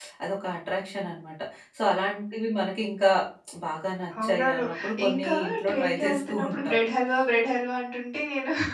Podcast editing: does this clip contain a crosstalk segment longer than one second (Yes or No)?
Yes